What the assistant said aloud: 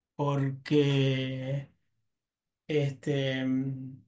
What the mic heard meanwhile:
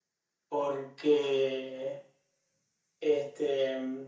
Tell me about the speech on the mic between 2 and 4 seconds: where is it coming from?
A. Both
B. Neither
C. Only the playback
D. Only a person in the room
C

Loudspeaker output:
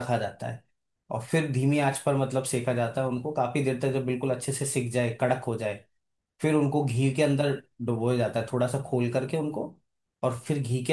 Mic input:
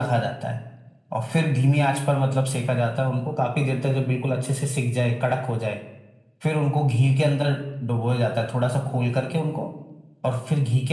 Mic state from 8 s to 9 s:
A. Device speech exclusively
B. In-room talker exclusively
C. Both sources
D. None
A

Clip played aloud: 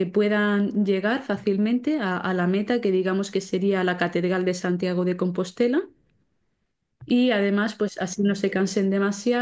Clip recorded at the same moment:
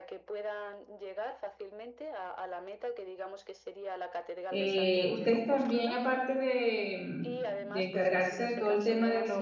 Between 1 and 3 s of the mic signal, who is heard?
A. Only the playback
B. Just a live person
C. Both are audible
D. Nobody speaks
A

